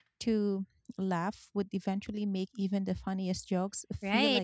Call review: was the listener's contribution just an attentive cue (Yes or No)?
No